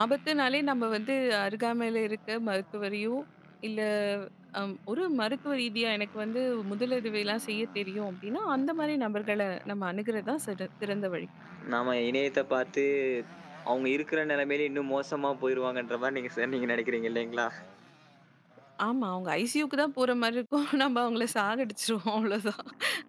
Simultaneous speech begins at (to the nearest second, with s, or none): none